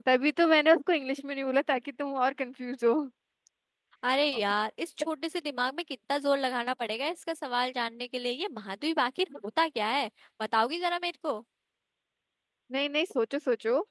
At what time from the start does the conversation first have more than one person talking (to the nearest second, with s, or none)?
none